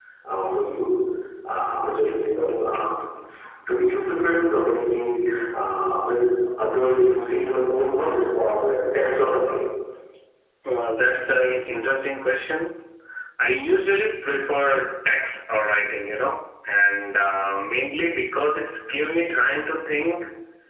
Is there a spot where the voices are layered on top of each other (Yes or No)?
No